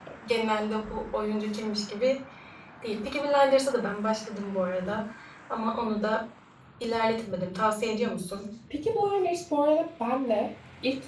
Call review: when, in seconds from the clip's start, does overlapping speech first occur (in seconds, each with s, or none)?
none